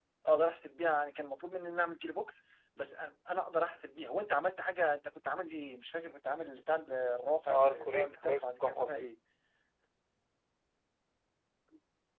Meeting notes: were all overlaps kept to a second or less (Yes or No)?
No